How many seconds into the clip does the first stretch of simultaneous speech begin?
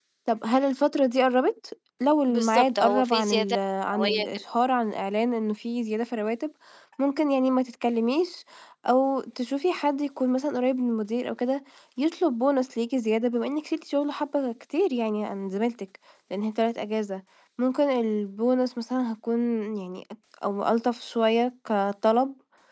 2 s

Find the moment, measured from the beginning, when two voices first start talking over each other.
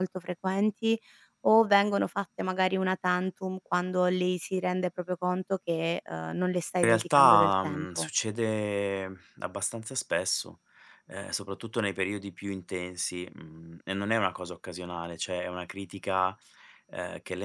7 s

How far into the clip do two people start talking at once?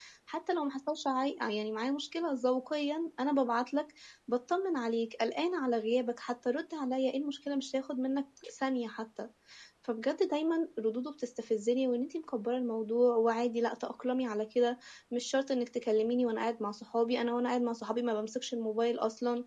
none

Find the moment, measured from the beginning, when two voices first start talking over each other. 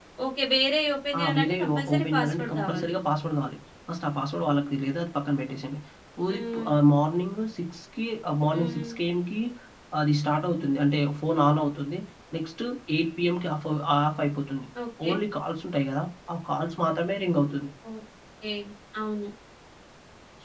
1 s

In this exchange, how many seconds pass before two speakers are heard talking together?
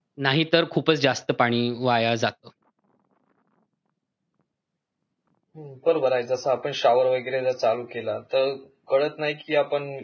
none

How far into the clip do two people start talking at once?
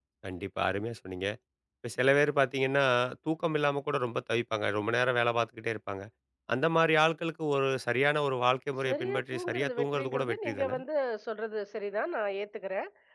9 s

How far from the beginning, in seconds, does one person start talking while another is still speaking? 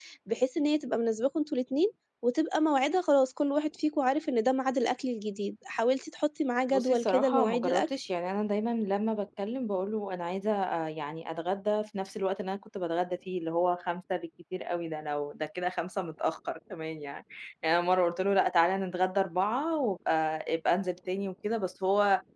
7 s

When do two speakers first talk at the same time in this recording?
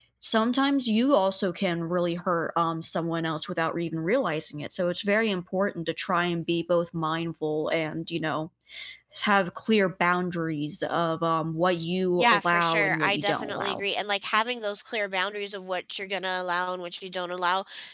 12 s

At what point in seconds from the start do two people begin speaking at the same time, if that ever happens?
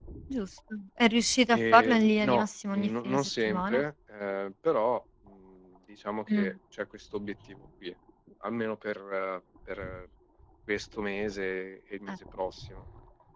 1 s

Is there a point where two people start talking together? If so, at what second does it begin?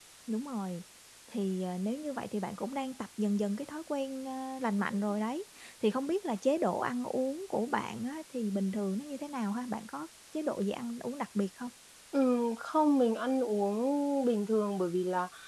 none

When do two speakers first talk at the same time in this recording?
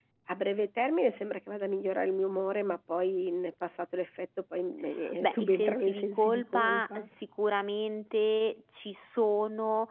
5 s

